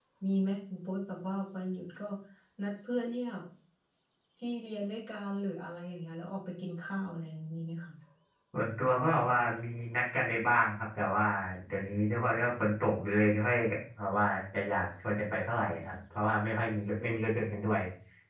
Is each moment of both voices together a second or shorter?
Yes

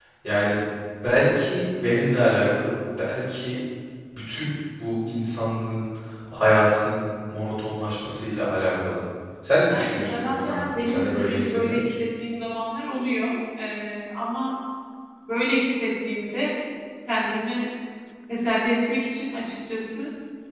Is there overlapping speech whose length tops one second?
Yes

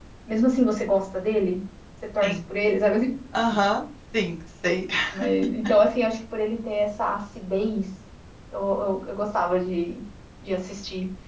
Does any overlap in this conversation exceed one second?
No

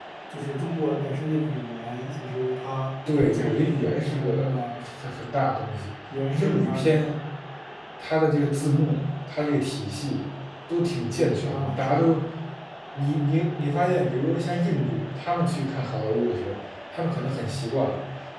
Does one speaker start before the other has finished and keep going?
Yes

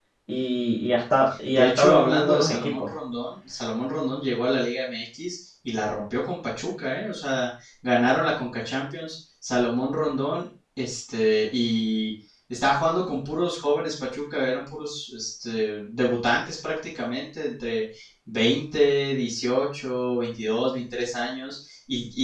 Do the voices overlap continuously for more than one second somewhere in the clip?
Yes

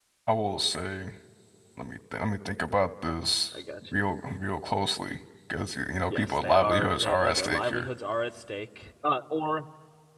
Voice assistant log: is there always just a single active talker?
No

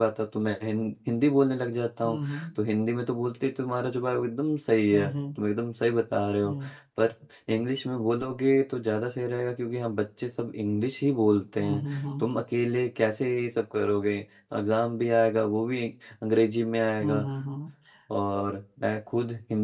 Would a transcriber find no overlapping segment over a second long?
Yes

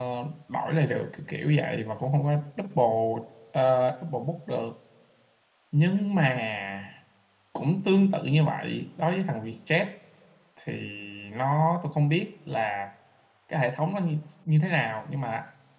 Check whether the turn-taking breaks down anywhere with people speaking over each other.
No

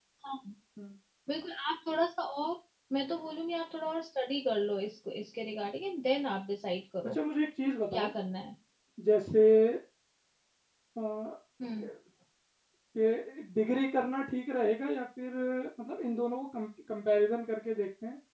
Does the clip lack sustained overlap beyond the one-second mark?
Yes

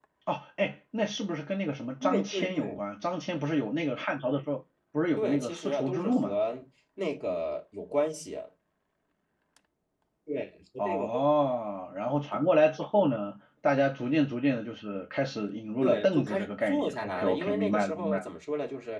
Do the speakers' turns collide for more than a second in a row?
Yes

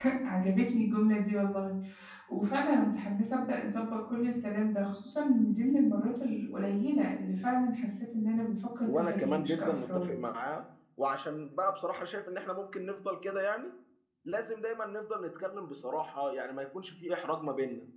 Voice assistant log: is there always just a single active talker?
No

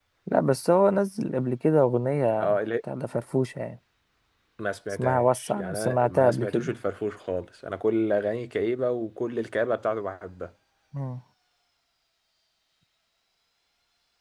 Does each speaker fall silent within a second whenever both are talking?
No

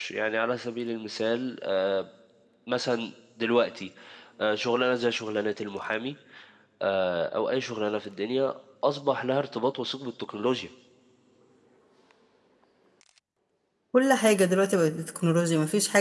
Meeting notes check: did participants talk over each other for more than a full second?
No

